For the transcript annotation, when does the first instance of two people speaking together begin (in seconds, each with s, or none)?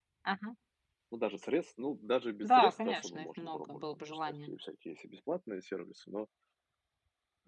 2.4 s